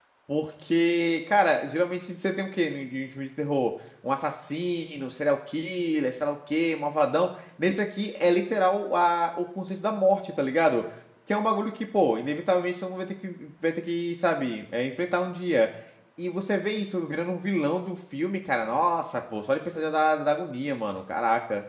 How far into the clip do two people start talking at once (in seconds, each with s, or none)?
none